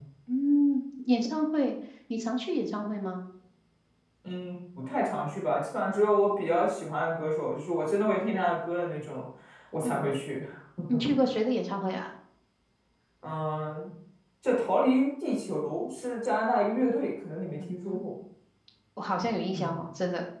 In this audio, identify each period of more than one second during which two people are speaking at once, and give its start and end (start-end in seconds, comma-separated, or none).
none